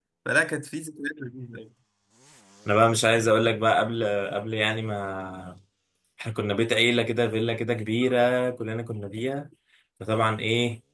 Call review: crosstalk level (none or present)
none